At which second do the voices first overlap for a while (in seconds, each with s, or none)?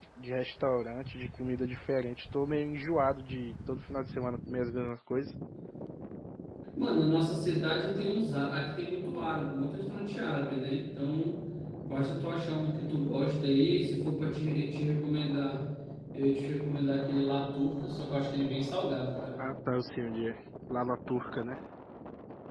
none